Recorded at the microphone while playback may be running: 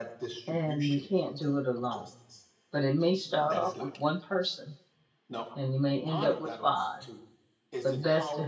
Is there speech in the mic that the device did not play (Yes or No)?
Yes